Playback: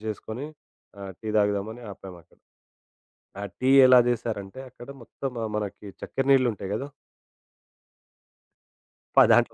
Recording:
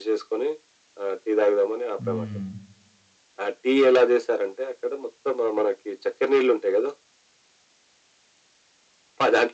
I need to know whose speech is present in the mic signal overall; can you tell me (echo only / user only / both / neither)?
both